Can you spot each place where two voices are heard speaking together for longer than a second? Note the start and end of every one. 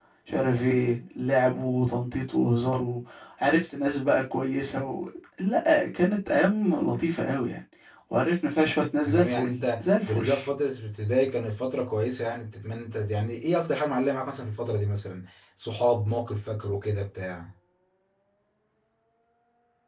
9.0-10.2

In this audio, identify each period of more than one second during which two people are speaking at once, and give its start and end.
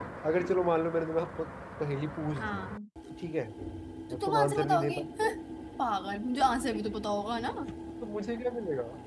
4.1-5.4

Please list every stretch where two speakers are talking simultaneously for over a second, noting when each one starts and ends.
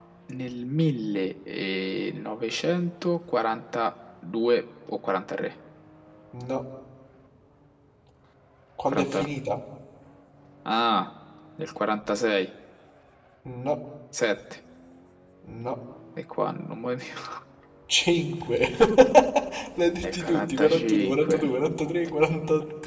20.0-21.5

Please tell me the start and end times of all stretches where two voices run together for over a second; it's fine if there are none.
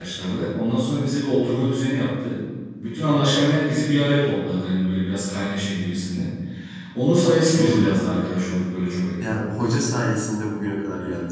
none

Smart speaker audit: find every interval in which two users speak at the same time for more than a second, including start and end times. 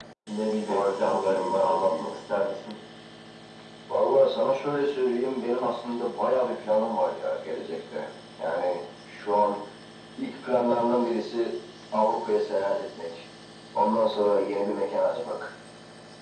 0.7-2.1

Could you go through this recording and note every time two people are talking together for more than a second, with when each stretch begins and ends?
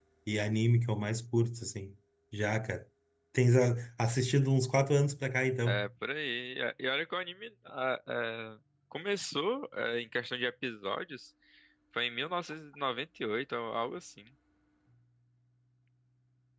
none

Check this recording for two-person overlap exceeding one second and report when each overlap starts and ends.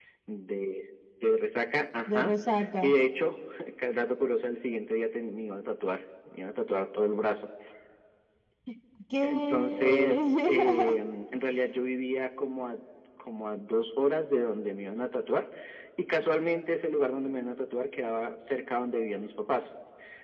9.2-11.0

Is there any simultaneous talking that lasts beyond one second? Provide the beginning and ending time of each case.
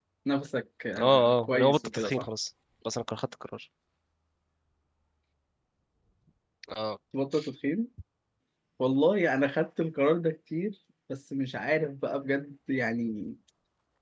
1.0-2.3

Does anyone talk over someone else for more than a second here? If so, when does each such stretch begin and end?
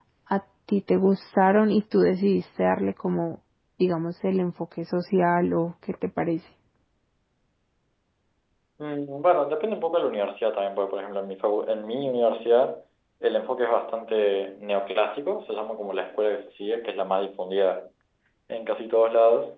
none

